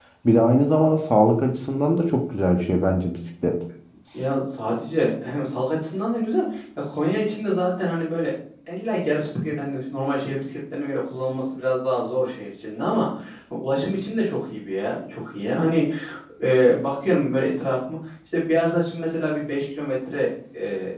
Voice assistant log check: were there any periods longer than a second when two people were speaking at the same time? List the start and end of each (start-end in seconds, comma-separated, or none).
none